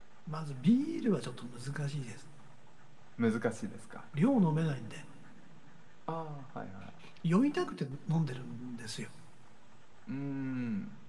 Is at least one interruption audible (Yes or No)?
No